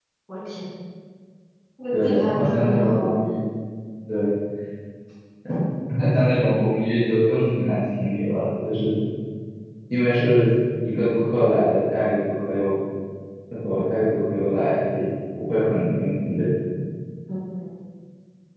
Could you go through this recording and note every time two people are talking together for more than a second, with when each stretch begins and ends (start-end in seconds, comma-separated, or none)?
1.9-3.2